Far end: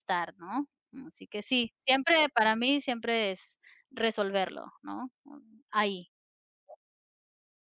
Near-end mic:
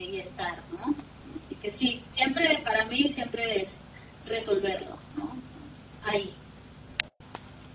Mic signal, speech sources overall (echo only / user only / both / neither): echo only